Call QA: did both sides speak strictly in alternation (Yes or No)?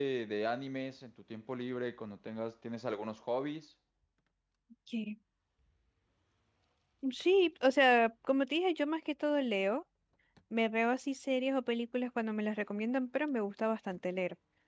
Yes